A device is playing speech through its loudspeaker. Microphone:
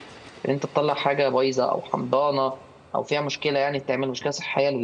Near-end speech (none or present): present